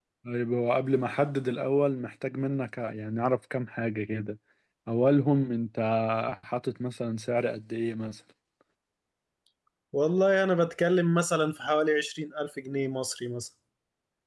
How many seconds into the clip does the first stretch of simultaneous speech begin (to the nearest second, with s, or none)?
none